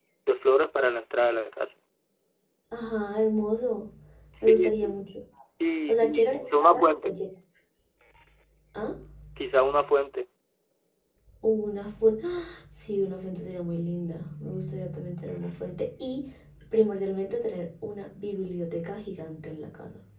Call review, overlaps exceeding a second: present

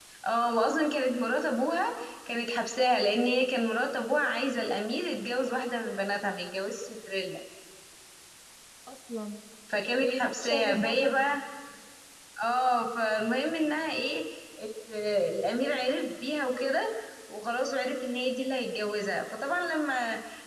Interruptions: present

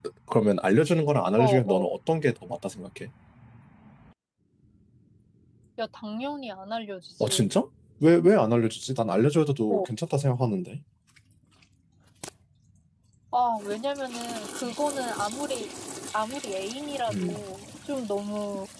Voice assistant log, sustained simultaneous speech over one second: none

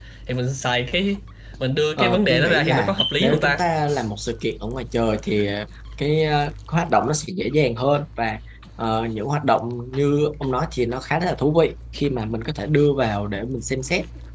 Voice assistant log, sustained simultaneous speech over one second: present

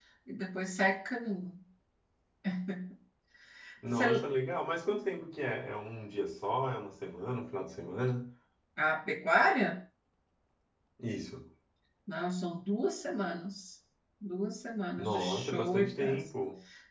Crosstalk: present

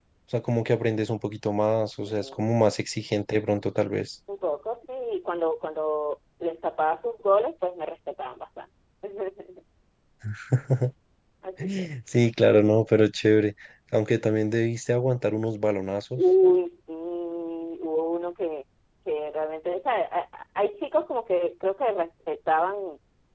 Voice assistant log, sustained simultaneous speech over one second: none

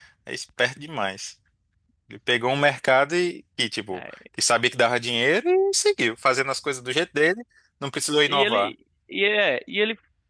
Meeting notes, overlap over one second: none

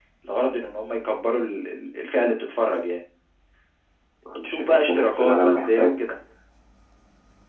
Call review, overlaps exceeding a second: present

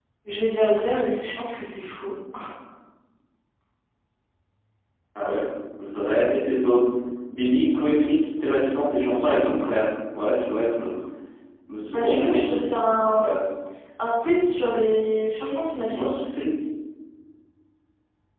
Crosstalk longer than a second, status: present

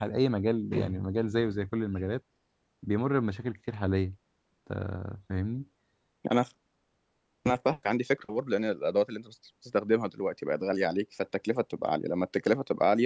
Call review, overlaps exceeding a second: none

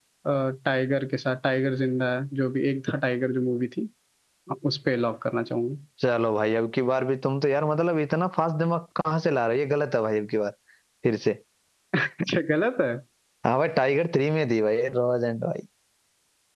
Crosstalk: none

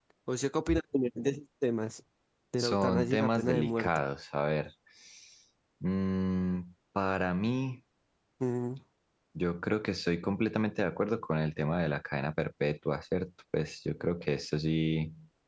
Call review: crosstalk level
present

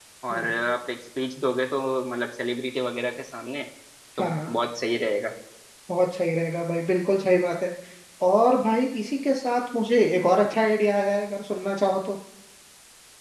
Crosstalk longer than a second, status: none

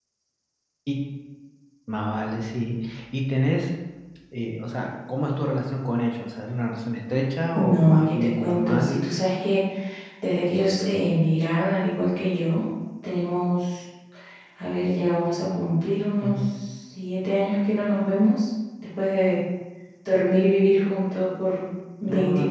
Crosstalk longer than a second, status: present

